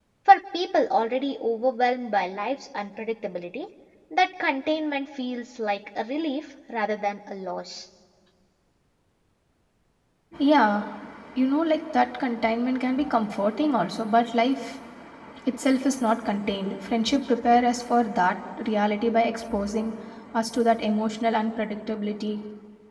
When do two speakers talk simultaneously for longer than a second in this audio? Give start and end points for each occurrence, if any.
none

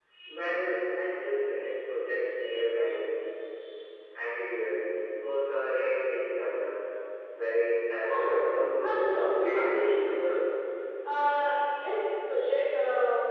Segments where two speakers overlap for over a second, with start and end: 8.8-10.2

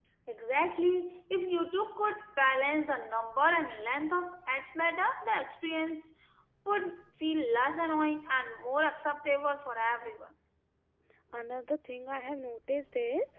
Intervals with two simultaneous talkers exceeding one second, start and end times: none

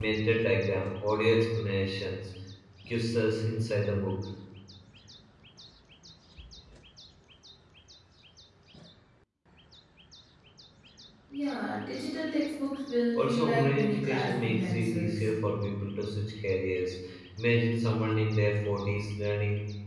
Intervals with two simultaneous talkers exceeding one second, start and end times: 13.1-15.3

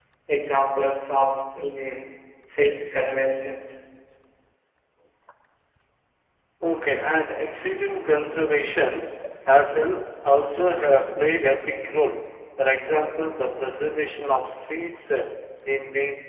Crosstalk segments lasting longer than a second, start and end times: none

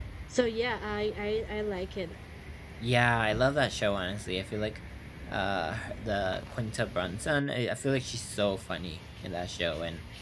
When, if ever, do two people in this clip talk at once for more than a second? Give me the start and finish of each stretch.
none

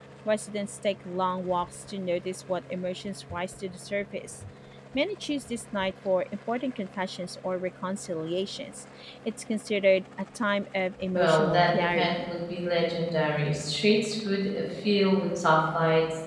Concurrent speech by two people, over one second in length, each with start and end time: 11.2-12.4

